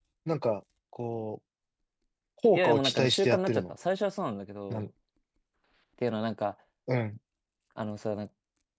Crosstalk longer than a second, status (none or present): present